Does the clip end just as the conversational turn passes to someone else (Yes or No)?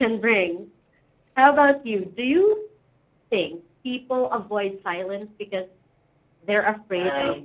Yes